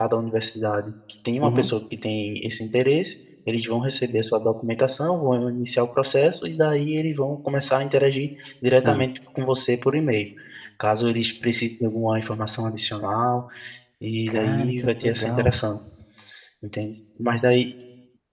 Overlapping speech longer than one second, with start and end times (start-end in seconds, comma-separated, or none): 14.3-15.6